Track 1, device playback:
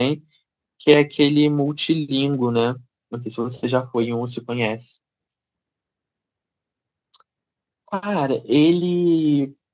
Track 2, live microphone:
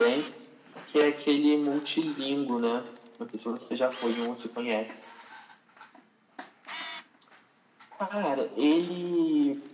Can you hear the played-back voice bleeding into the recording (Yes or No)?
Yes